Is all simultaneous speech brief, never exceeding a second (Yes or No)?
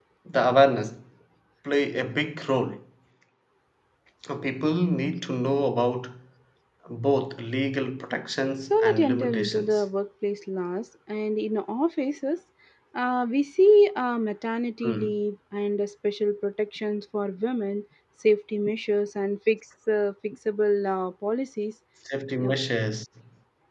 No